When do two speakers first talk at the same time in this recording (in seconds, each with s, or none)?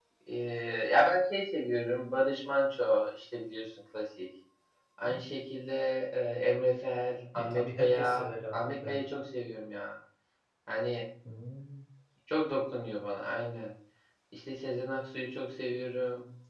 7.3 s